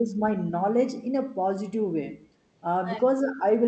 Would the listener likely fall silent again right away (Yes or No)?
Yes